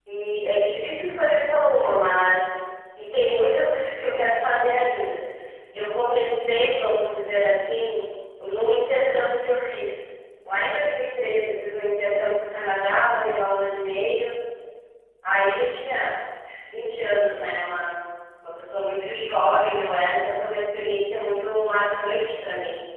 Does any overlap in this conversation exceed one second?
No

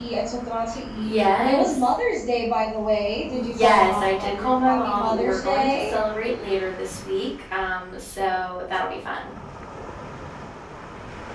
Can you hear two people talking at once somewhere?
Yes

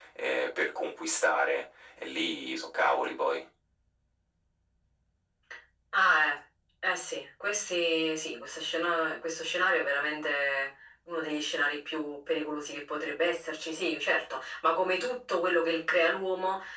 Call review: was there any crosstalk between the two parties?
No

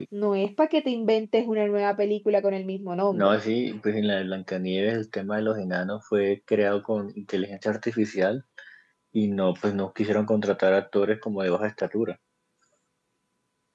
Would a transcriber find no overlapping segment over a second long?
Yes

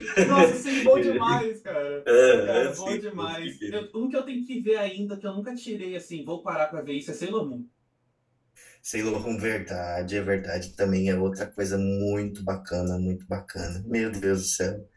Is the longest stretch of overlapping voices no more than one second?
No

